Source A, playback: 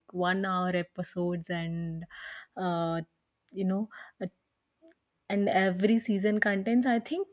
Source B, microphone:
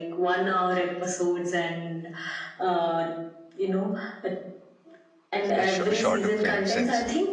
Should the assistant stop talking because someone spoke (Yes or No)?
Yes